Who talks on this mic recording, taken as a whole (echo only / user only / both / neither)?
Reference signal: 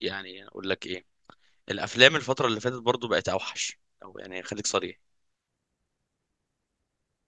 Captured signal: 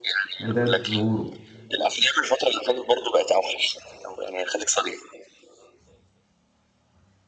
both